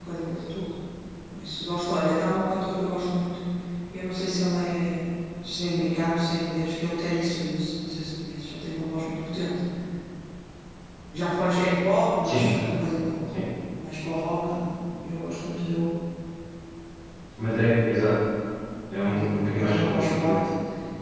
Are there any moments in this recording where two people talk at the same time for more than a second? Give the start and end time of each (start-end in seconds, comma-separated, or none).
19.0-20.4